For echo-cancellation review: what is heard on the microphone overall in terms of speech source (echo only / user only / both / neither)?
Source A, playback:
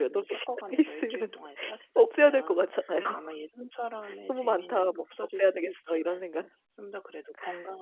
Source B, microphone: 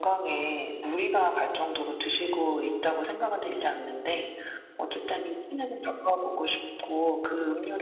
user only